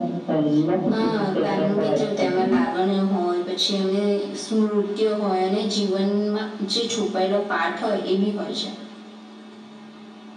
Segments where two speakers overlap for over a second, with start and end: 1.0-2.6

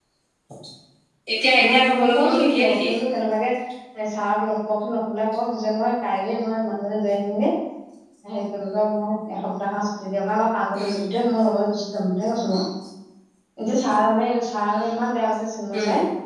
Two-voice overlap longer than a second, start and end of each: 1.7-2.9

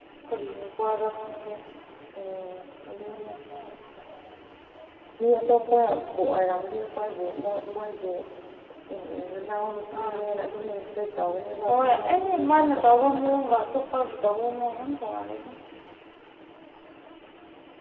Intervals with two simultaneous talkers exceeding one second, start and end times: 11.7-13.3

